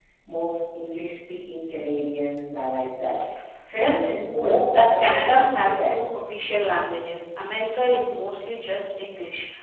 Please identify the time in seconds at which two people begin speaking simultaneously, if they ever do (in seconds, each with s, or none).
3.8 s